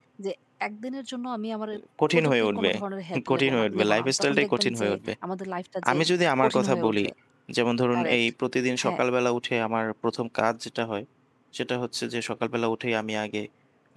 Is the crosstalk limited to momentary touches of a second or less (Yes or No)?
No